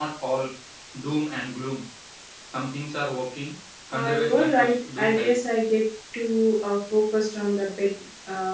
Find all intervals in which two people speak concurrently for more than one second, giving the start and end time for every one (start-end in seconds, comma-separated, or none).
3.9-5.3